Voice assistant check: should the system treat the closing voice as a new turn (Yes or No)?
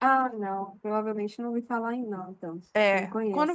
Yes